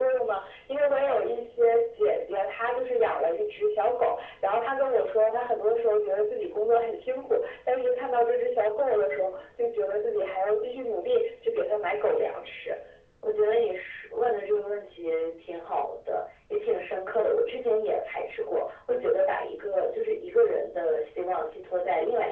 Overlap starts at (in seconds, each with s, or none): none